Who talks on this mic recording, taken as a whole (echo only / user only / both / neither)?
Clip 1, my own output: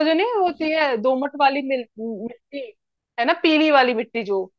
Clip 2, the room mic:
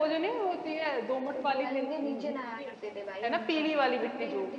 both